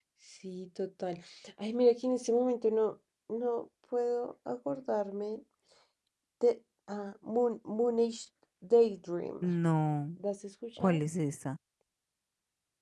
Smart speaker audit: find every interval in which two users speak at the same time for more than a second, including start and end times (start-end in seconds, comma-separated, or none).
none